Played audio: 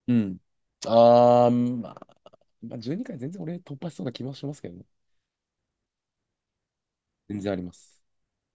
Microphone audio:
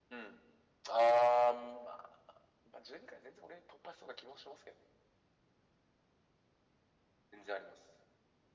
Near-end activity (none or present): none